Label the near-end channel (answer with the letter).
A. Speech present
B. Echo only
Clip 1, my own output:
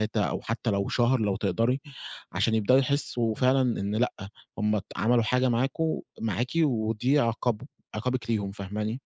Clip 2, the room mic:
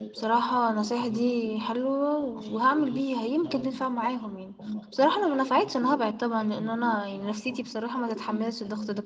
A